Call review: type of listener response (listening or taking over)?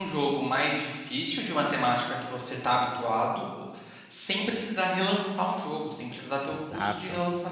listening